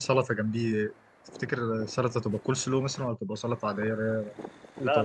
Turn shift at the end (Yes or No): Yes